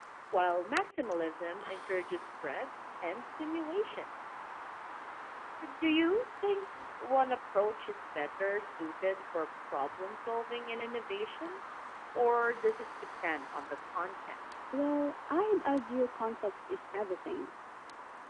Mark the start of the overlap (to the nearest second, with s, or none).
none